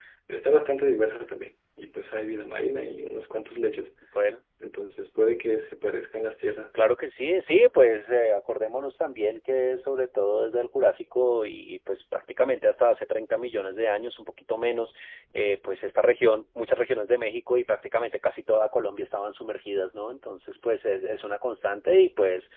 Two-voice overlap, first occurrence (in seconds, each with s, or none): none